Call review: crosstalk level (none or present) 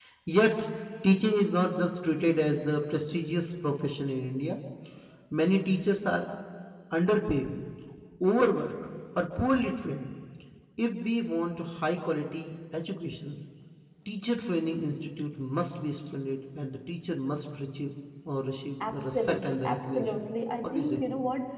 present